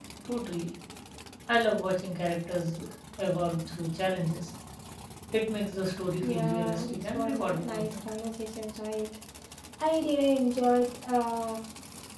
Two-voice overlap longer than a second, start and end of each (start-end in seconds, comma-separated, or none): 6.2-8.1